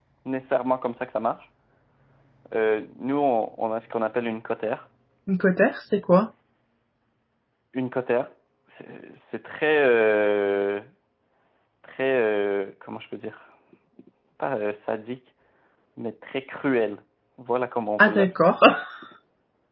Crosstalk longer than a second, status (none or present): none